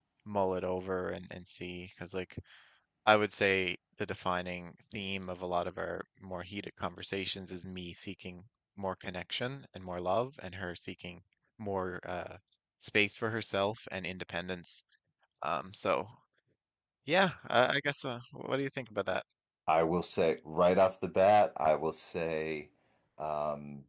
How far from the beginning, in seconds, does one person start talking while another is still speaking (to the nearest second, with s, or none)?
none